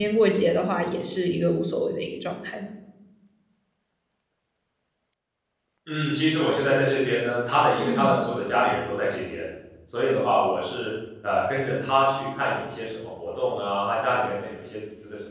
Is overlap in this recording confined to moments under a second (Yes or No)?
Yes